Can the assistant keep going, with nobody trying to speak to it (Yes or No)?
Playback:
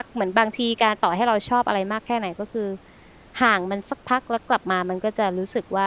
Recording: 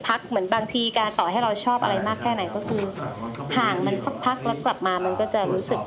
No